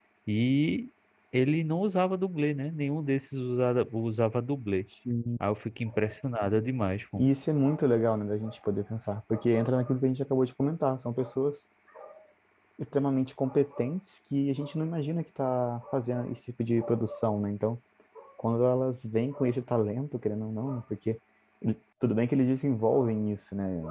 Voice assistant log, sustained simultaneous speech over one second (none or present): none